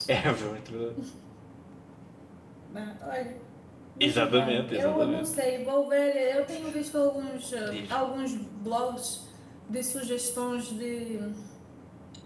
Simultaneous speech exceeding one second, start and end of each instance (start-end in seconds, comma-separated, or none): 4.0-5.2